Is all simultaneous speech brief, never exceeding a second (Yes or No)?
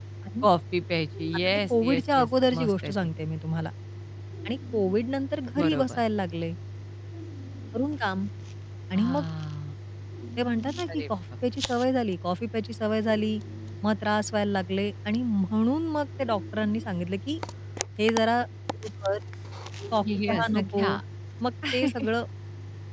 No